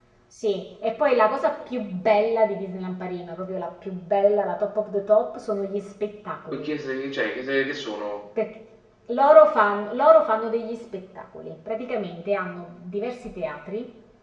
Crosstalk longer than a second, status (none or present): none